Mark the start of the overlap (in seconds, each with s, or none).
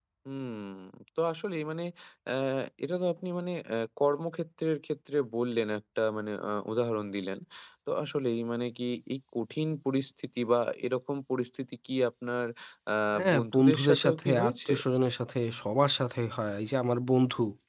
13.3 s